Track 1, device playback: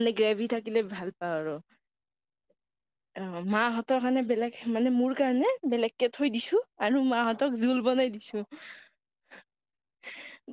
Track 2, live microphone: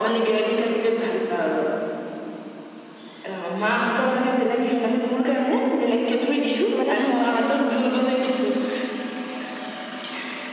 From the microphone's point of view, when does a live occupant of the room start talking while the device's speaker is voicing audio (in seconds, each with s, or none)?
6.8 s